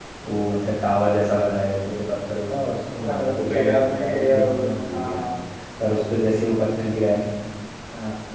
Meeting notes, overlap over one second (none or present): present